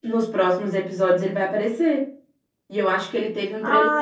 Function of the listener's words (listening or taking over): listening